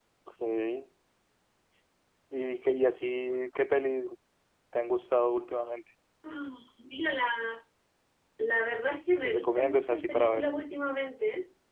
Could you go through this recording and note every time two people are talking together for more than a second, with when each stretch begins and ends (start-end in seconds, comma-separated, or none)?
9.2-10.4